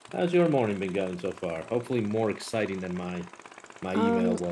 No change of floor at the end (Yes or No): No